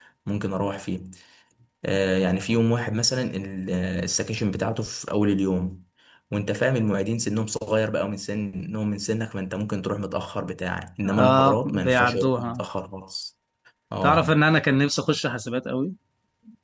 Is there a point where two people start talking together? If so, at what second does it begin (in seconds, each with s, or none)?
11.2 s